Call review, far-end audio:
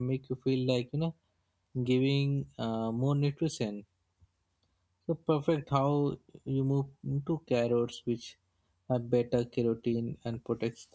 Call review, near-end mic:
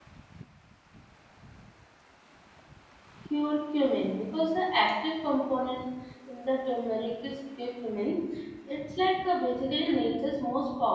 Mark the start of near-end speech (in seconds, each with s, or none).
3.2 s